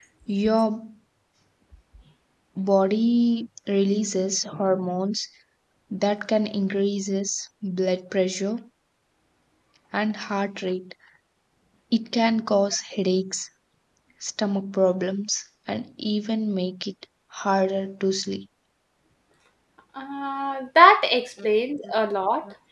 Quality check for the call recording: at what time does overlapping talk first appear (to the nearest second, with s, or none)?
none